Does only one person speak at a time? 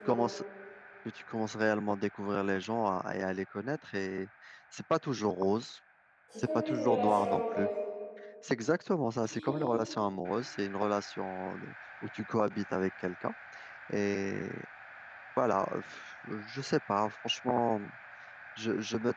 No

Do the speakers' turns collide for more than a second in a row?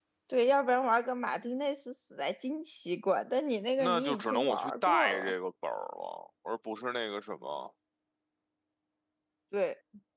Yes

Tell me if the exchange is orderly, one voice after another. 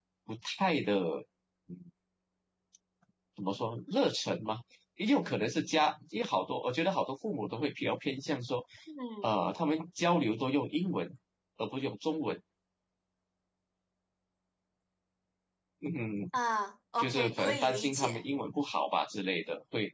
No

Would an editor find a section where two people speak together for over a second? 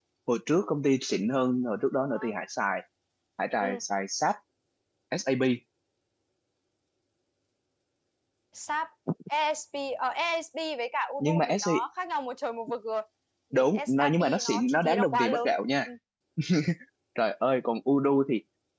Yes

